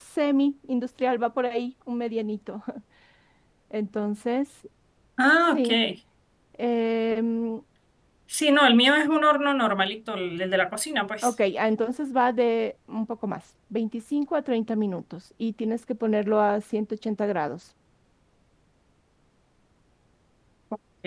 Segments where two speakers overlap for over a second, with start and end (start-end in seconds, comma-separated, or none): none